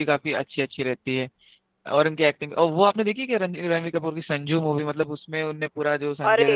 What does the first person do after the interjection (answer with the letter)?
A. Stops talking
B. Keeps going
A